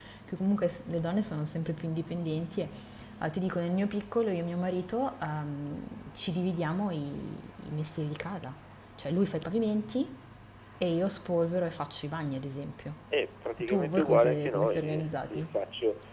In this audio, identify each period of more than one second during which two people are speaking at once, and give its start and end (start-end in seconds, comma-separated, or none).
13.6-15.4